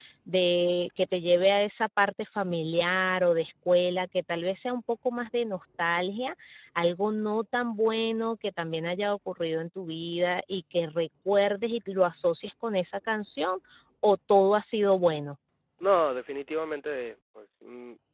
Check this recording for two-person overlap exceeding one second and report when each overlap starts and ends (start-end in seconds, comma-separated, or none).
none